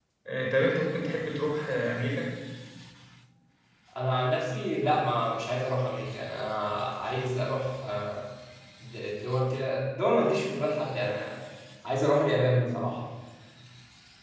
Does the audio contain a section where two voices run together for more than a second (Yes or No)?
No